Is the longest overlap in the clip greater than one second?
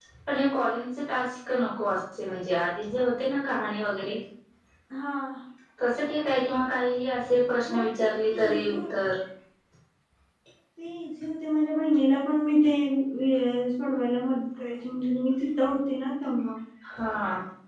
Yes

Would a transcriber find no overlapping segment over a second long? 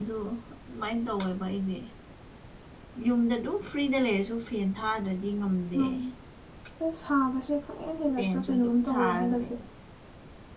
No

